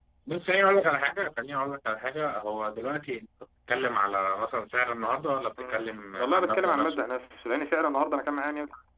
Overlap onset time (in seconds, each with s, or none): 5.6 s